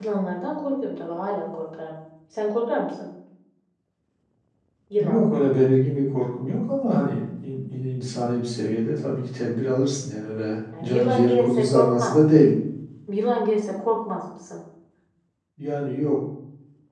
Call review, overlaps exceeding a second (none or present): present